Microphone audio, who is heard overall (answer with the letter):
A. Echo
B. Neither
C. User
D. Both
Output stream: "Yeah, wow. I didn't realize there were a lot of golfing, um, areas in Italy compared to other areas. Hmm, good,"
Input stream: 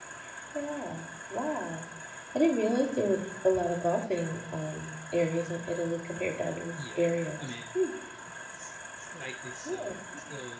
D